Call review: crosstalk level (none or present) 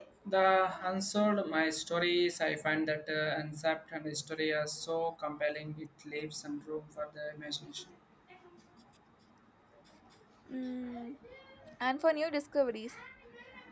none